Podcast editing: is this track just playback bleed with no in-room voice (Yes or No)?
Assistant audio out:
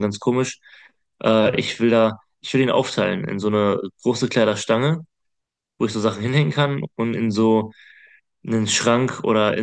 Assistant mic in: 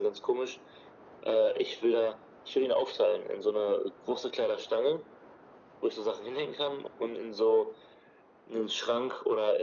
Yes